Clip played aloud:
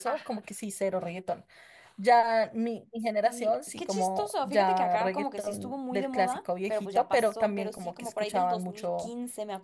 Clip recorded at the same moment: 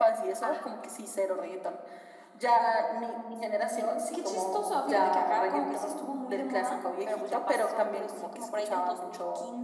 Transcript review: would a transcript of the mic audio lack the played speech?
No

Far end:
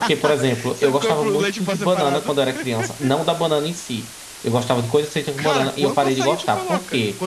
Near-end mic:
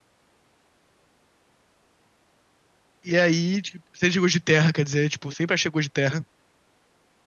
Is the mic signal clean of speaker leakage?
Yes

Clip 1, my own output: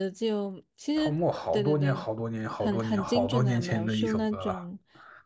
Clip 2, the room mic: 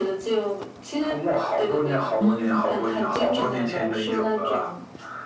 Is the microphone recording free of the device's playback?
No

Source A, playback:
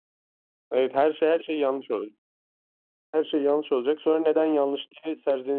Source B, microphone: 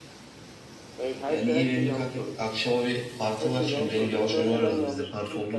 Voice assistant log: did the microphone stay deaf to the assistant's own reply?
No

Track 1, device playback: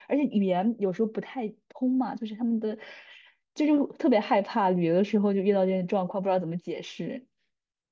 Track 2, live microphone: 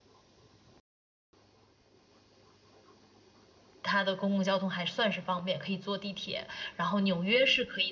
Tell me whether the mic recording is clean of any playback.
Yes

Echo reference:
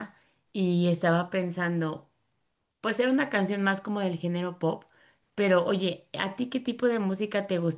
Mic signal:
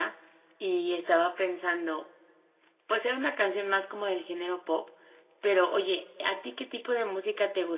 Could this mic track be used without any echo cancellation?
No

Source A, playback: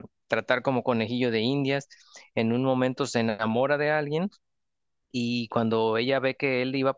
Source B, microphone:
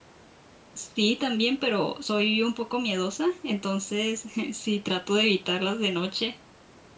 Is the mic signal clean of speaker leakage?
Yes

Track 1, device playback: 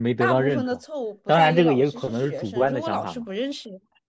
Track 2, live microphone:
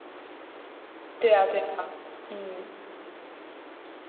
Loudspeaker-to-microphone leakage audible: No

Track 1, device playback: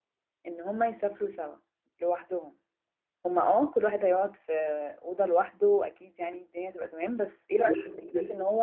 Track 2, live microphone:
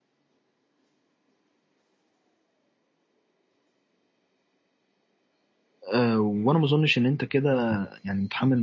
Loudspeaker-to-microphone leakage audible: No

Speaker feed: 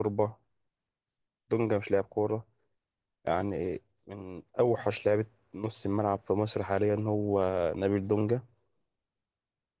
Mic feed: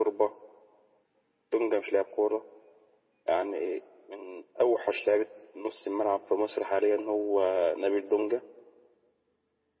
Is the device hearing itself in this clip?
Yes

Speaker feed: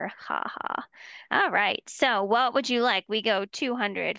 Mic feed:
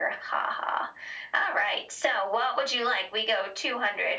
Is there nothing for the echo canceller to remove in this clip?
No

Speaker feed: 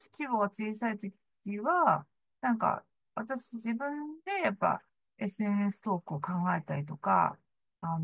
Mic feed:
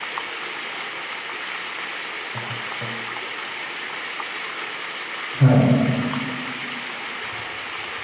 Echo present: No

